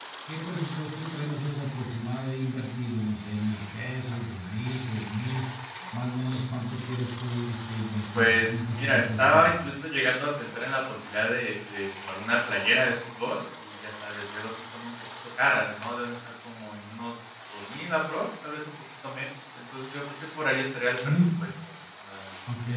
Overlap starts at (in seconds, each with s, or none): 8.1 s